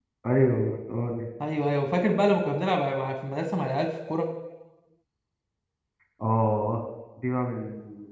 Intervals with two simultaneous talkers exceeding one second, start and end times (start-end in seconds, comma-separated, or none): none